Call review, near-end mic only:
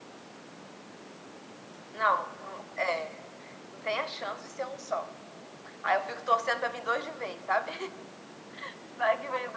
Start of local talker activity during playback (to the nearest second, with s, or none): none